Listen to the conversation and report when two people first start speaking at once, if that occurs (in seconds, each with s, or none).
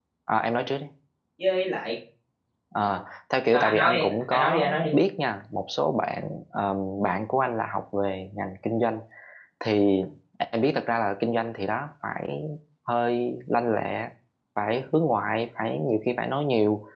3.5 s